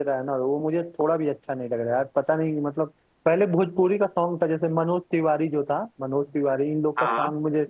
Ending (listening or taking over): listening